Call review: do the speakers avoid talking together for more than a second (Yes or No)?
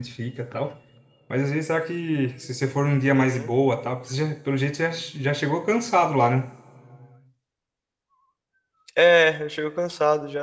Yes